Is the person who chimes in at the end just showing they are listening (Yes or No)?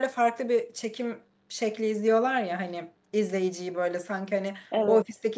Yes